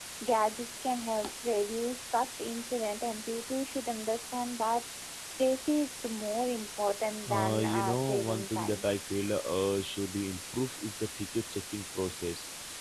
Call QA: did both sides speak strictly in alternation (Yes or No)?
No